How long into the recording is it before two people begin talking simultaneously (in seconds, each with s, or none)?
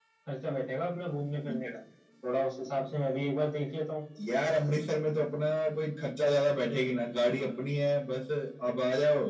none